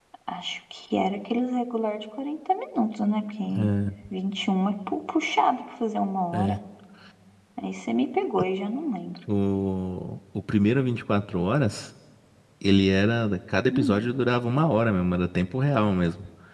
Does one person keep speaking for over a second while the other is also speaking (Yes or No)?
No